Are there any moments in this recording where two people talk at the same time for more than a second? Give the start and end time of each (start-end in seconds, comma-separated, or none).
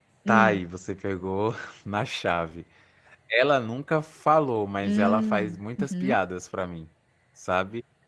4.8-6.2